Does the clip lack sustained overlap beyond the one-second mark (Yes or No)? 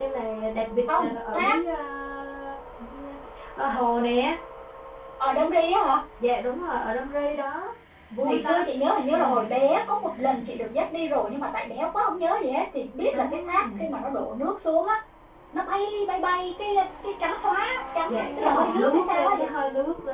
No